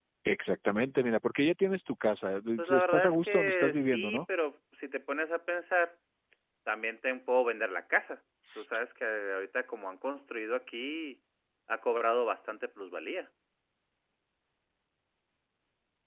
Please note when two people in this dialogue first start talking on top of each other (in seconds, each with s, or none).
2.6 s